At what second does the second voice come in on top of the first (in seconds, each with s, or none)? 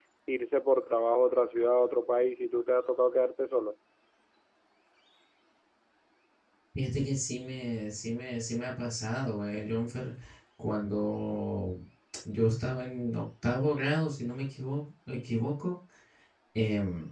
none